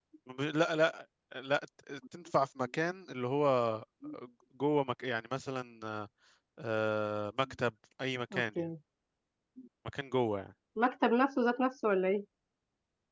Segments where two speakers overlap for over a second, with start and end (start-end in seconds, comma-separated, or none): none